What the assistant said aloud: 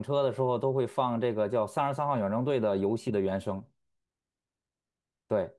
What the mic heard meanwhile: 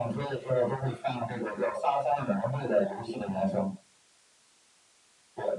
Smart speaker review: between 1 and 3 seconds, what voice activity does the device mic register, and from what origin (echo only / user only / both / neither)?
echo only